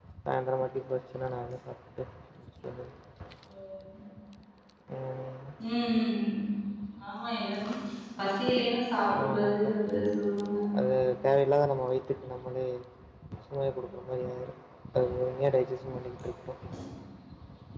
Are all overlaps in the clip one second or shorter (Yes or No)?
Yes